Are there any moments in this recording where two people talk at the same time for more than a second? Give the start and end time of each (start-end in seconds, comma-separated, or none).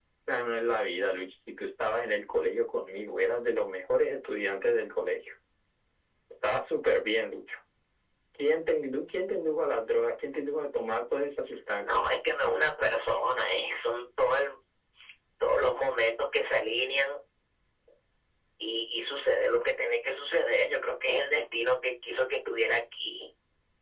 none